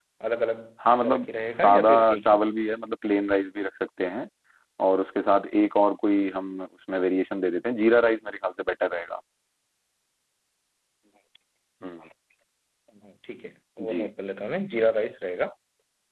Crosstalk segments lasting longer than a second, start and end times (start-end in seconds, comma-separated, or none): 1.0-2.4